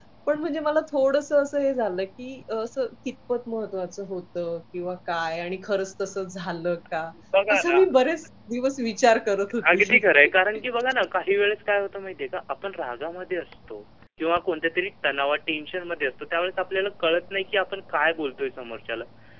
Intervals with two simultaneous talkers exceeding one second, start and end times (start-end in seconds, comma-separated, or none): none